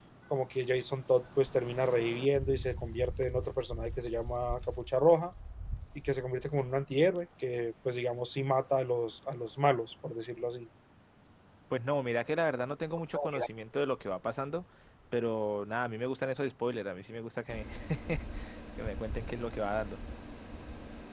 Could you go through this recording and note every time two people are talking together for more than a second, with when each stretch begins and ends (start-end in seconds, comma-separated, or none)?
none